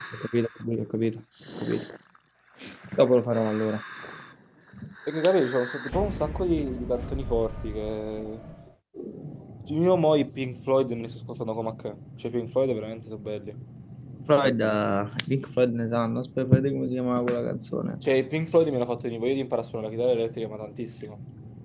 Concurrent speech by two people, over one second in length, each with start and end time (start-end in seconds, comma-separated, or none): none